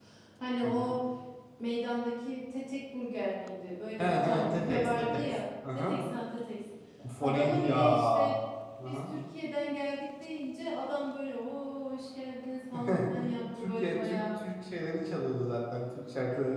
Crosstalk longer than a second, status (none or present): present